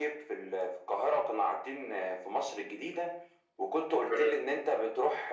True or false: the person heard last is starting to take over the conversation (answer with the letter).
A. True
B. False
B